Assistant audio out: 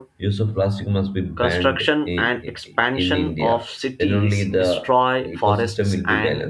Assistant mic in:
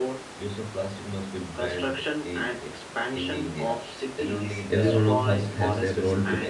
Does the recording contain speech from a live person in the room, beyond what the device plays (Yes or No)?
Yes